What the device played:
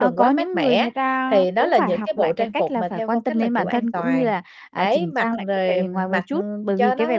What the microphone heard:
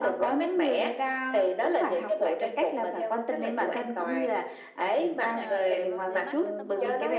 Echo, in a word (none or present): present